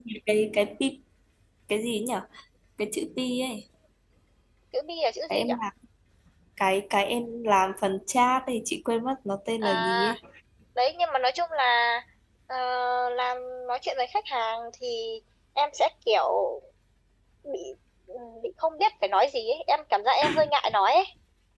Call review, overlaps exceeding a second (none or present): none